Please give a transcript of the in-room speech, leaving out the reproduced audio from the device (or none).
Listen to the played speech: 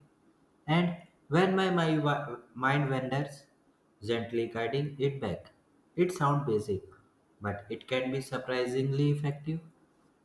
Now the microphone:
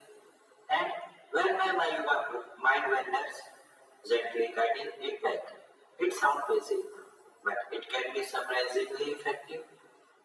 none